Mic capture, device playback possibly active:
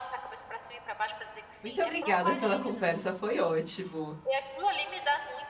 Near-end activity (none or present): present